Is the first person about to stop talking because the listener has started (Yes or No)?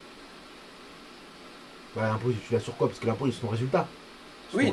Yes